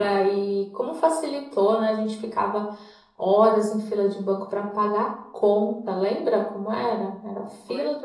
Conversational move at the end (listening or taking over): listening